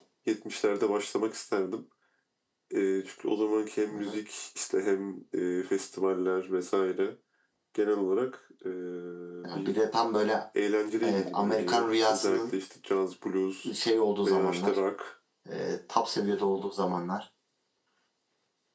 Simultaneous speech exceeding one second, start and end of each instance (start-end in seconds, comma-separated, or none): 11.0-12.5